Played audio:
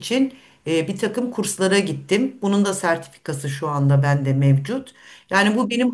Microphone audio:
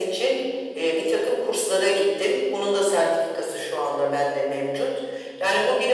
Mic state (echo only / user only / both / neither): echo only